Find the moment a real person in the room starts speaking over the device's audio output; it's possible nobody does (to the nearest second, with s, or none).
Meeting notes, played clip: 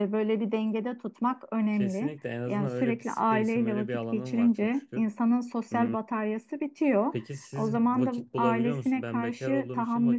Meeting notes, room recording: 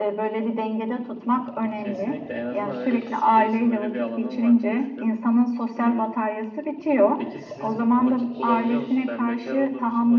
none